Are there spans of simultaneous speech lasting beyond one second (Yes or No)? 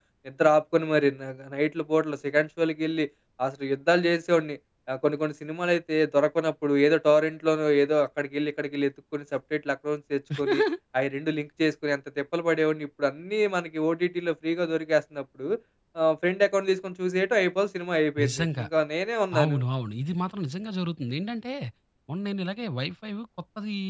No